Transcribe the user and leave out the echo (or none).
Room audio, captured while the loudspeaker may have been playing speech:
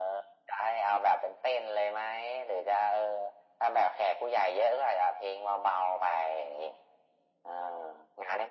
none